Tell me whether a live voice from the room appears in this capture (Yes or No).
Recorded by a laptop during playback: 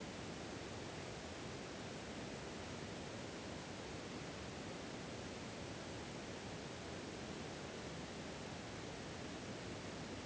No